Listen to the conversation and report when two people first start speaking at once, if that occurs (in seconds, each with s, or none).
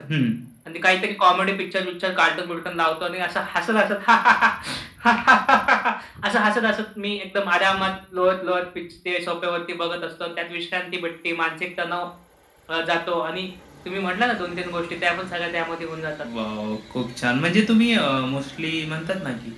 none